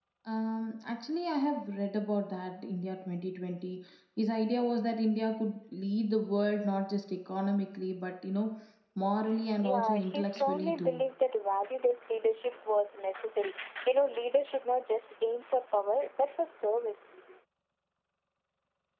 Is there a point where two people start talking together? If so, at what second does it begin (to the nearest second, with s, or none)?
10 s